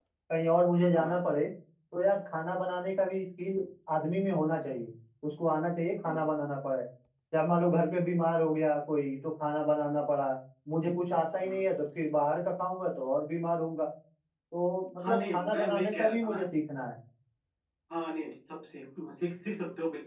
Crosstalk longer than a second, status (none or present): present